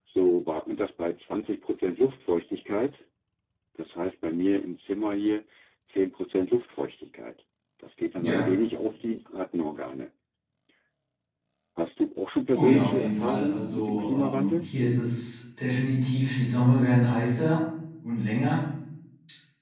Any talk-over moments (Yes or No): Yes